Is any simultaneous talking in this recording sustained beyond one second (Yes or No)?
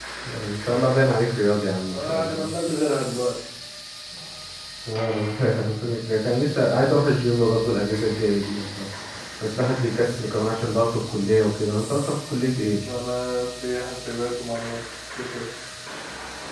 No